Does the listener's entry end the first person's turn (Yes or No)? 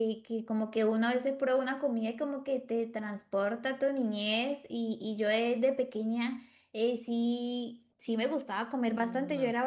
No